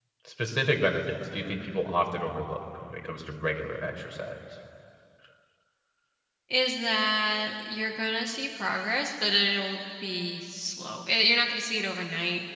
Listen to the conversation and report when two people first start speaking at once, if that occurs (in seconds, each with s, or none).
none